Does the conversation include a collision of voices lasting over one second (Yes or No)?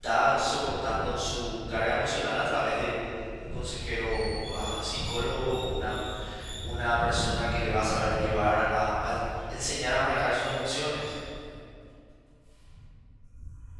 No